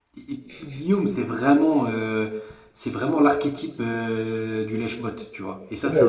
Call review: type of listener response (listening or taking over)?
taking over